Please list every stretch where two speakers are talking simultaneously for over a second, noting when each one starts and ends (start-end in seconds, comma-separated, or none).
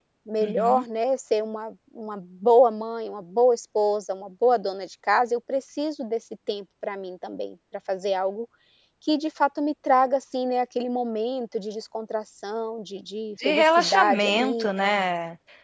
13.4-14.7